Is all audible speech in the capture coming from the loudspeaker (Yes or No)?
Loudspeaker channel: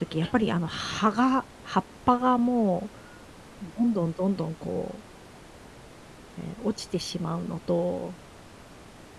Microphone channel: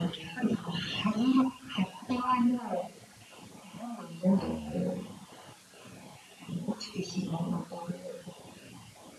No